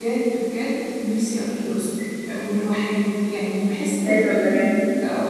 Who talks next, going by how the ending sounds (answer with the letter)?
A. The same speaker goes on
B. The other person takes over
A